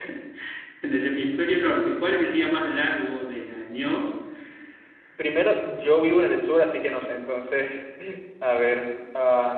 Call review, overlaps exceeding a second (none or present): none